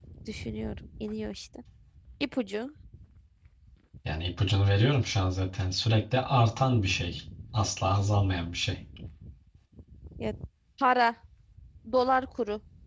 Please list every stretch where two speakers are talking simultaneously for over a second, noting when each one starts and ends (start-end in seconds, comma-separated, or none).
none